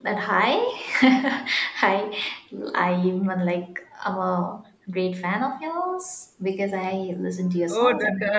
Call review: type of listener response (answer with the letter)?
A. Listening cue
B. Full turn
B